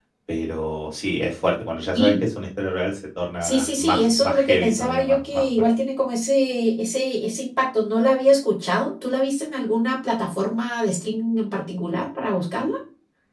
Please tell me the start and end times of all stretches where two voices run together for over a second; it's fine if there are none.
3.4-5.7

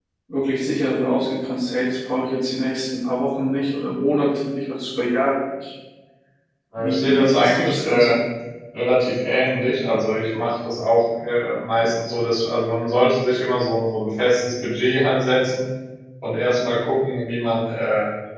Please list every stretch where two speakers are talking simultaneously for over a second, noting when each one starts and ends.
6.8-8.2

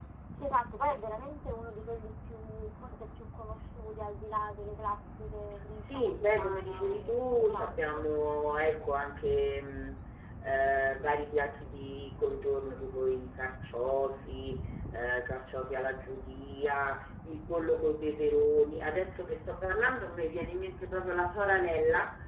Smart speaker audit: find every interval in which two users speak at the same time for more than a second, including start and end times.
5.9-8.1

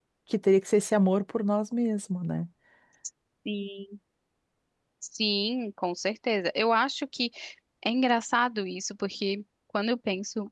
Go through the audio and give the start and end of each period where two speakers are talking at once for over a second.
none

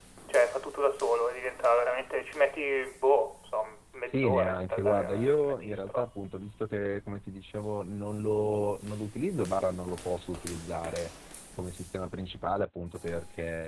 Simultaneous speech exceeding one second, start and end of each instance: 4.0-6.0

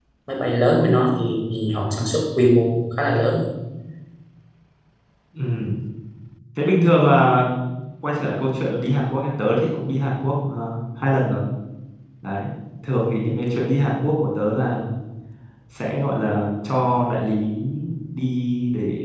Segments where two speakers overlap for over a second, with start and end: none

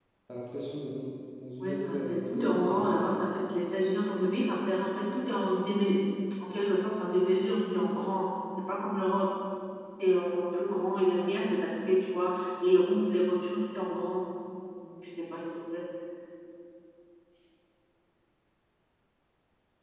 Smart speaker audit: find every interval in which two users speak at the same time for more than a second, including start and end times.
1.6-2.9

